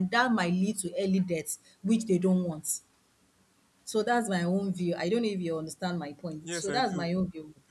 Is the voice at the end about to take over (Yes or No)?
Yes